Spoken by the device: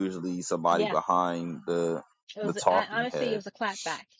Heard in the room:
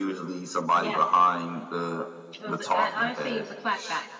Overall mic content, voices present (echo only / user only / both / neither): echo only